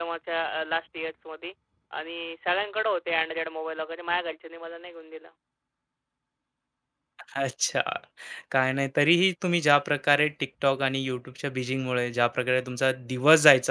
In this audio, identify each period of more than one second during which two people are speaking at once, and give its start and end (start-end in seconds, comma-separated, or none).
none